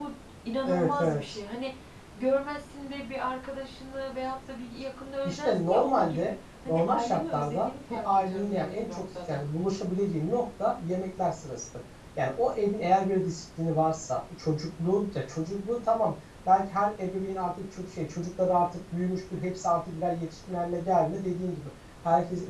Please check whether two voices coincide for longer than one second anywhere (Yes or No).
Yes